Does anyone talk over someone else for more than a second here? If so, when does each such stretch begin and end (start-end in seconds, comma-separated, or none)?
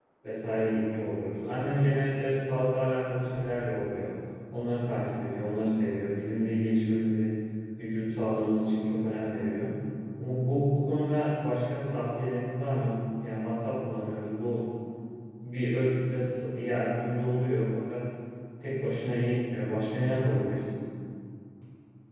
none